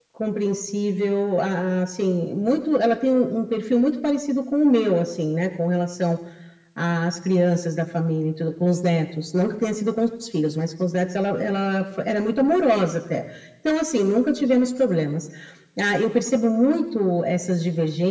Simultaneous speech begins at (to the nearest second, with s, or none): none